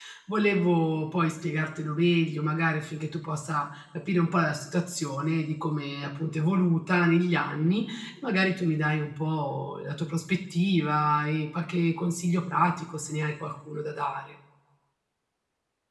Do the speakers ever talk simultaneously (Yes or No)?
No